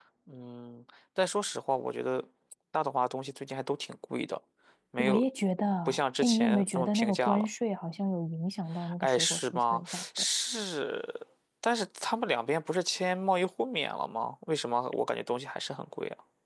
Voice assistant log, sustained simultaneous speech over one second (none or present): present